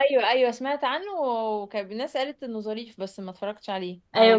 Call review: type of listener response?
taking over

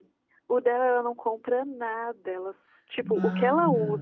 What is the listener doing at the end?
listening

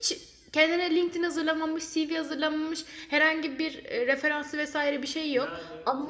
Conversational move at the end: taking over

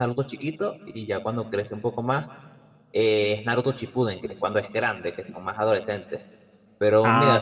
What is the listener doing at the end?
taking over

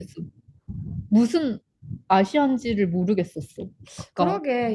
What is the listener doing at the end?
taking over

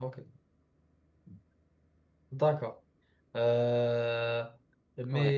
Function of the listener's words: listening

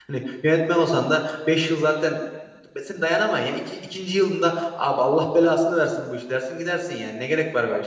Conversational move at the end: taking over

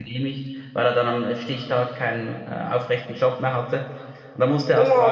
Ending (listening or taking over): taking over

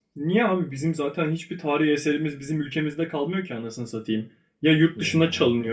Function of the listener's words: listening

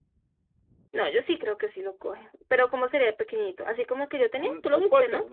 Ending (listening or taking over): taking over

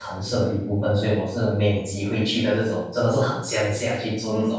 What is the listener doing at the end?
taking over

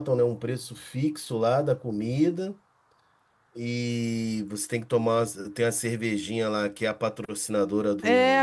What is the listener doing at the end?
taking over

